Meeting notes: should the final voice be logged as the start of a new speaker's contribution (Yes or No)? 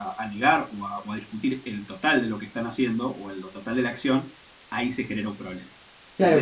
Yes